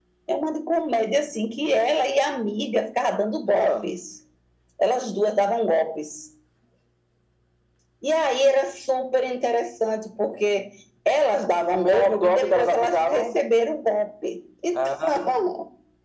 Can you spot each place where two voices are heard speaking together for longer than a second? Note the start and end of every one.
11.7-13.3

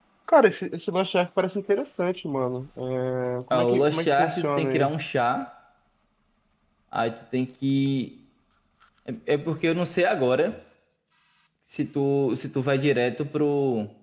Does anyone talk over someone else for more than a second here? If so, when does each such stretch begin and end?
3.5-4.9

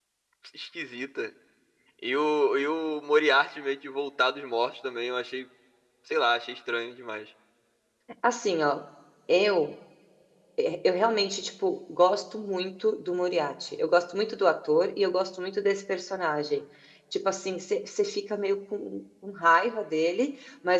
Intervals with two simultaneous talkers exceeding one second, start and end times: none

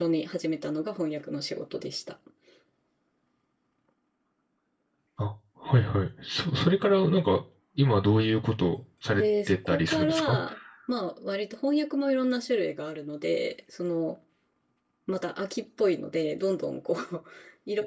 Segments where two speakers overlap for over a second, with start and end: 9.1-10.4

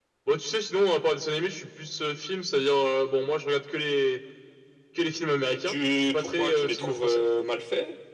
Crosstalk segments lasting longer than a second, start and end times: 5.6-7.2

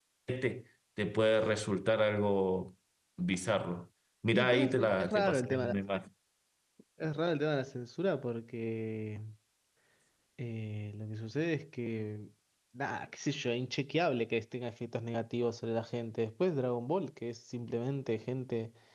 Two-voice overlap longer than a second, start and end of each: 4.3-5.7

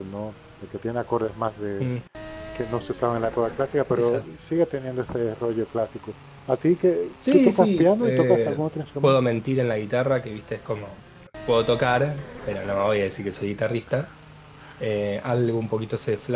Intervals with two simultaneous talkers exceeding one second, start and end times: 7.3-8.6

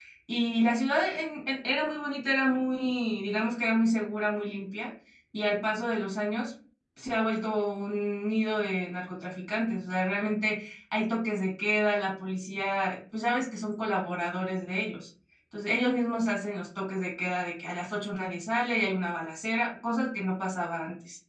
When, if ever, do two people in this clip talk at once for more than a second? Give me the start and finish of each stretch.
none

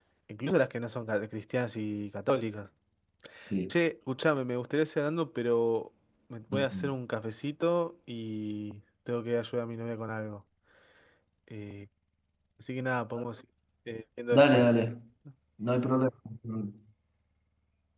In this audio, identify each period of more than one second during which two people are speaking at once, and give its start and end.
none

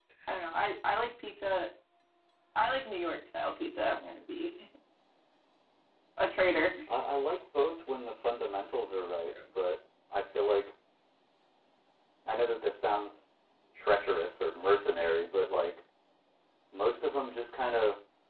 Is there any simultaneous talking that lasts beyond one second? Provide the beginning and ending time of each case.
none

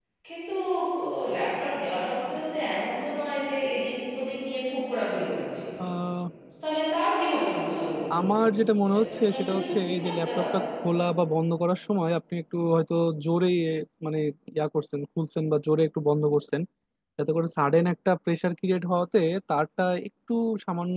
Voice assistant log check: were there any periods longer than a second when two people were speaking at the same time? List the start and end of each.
8.8-10.6

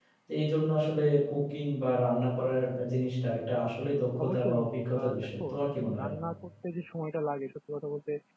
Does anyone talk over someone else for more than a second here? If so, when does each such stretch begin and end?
4.2-6.1

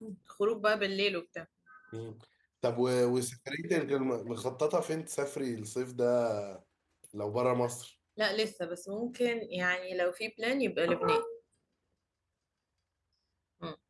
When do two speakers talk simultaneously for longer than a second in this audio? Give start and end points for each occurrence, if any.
none

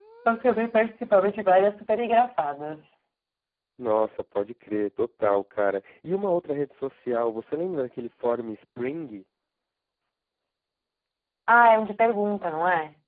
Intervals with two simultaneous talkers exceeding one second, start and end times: none

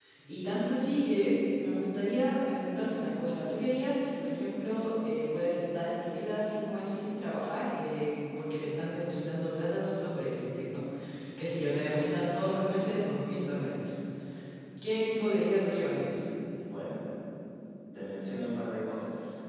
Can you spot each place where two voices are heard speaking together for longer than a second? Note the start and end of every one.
none

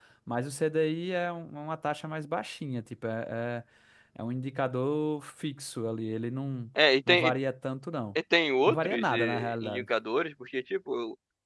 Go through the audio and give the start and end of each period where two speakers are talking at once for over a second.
8.7-9.9

